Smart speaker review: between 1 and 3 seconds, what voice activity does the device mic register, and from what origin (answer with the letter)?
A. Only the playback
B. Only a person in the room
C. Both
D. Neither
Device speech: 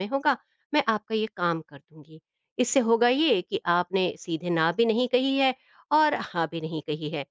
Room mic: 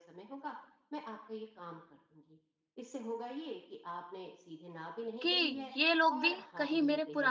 A